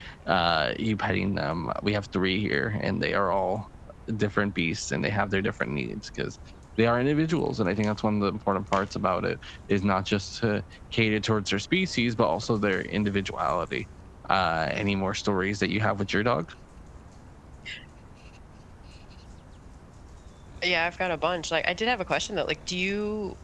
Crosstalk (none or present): none